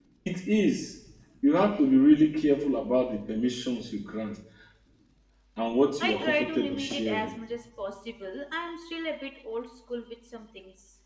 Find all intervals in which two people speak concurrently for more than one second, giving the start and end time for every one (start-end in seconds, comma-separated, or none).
6.0-7.3